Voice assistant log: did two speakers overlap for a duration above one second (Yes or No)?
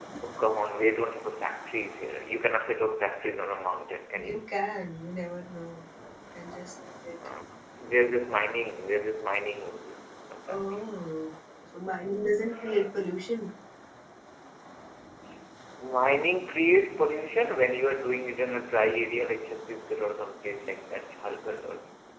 No